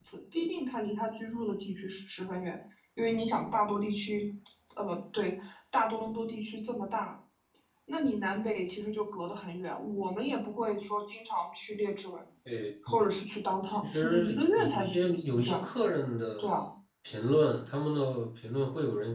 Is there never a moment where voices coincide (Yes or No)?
No